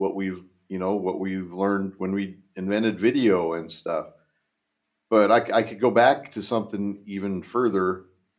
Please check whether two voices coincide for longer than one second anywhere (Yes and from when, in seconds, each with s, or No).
No